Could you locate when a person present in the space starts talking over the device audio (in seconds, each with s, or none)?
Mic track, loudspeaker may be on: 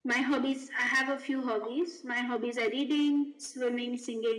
none